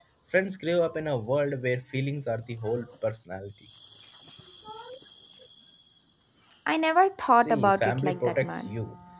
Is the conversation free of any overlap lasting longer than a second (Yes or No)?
No